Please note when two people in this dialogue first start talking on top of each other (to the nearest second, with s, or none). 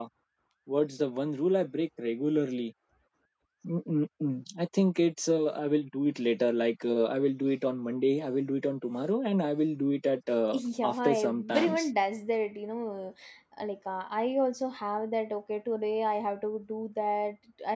11 s